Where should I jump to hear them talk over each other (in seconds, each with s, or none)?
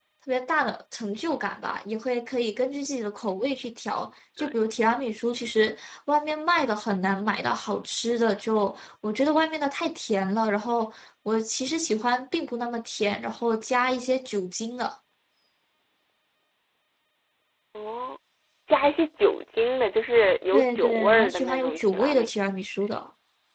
20.5 s